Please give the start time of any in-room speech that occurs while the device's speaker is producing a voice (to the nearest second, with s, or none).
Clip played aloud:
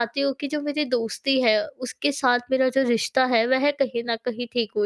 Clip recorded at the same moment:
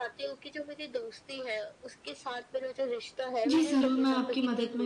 3 s